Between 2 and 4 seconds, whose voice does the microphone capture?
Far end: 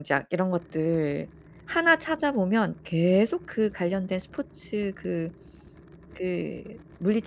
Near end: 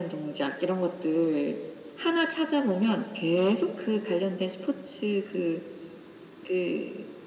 echo only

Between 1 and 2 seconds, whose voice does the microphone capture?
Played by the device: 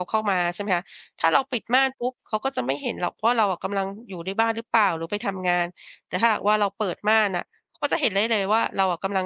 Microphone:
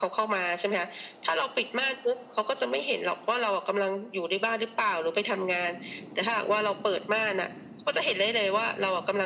echo only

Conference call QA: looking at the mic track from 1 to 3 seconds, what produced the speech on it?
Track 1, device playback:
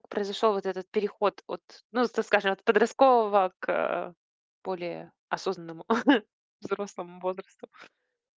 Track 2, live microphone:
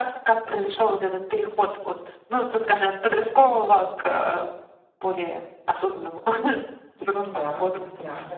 echo only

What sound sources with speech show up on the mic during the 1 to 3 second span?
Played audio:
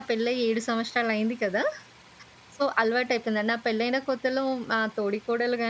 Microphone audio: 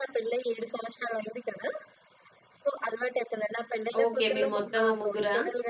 echo only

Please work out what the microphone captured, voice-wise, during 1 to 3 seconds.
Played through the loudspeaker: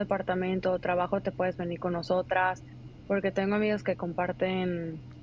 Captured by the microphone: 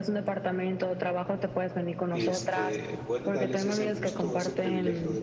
both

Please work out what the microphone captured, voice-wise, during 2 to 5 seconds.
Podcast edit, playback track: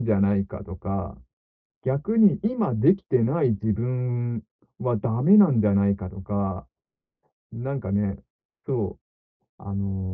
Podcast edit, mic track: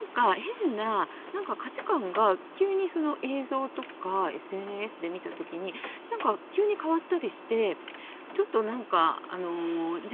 user only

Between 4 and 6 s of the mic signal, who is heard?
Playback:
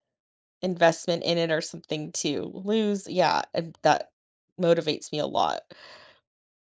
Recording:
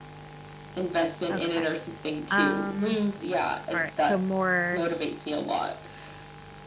both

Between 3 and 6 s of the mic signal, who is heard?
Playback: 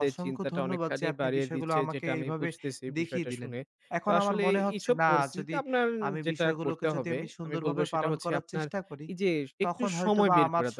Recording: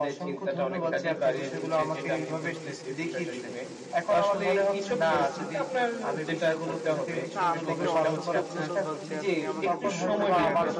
echo only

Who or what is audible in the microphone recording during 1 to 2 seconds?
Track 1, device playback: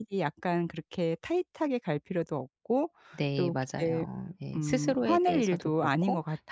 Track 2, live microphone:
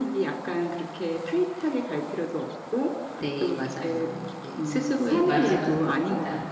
echo only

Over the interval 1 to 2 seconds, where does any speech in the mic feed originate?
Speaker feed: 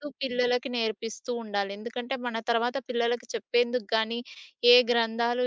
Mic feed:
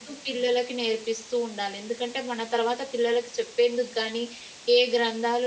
echo only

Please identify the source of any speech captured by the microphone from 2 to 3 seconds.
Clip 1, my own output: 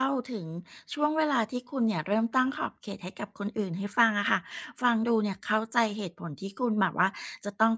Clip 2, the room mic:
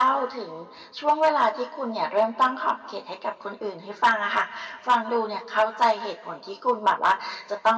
echo only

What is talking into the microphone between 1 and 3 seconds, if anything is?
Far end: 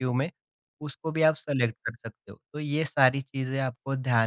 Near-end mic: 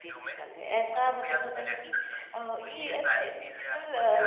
both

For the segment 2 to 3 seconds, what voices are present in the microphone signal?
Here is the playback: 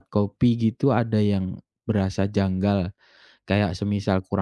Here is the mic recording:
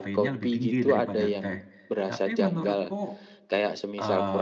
both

